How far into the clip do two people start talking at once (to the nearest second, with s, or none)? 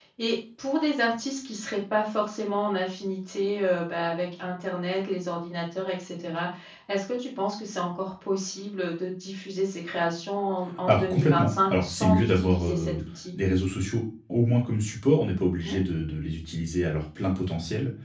11 s